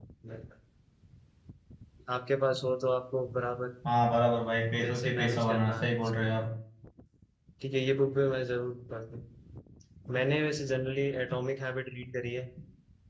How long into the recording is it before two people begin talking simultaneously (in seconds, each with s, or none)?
4.8 s